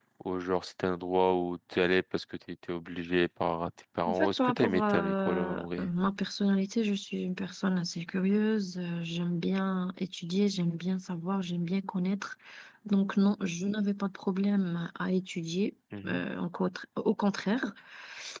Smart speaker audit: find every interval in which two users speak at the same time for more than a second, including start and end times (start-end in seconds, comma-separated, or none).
4.1-5.9